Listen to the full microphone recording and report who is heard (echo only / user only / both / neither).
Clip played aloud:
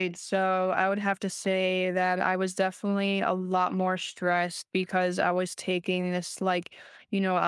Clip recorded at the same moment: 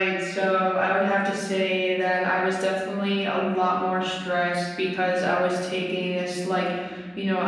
echo only